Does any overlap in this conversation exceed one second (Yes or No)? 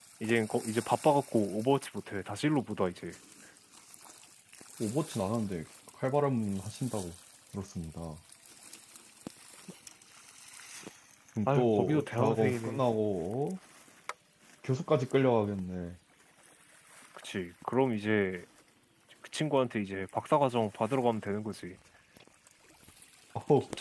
Yes